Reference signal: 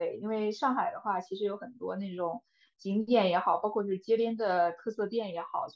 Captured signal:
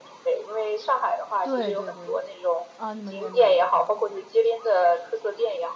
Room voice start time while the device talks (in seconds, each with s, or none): 1.4 s